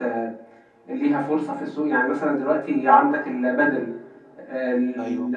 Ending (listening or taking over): listening